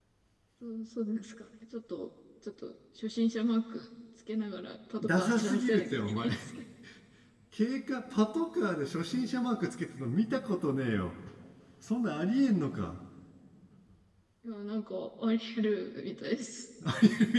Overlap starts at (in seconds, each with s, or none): 5.0 s